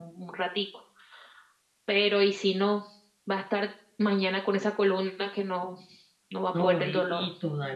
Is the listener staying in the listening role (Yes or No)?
No